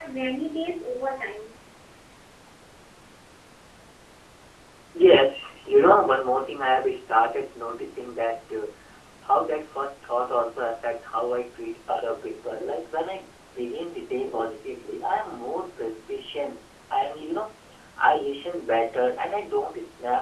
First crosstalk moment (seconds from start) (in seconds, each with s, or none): none